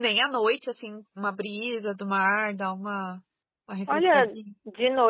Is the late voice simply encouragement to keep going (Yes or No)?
No